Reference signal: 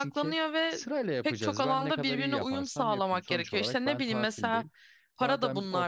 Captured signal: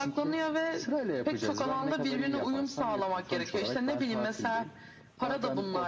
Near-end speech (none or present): none